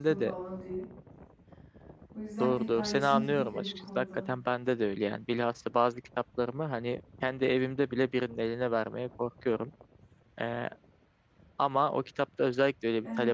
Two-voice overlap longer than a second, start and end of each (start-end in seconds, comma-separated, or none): 2.4-4.2